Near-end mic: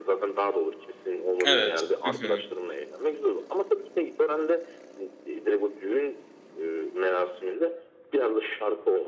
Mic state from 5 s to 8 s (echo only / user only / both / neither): echo only